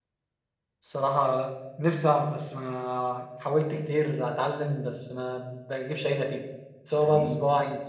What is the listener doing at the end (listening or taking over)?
listening